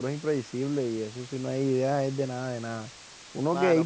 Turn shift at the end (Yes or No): No